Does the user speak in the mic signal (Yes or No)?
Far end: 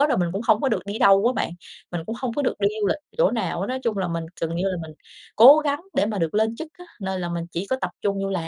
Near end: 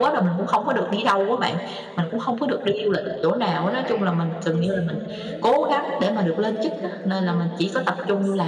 Yes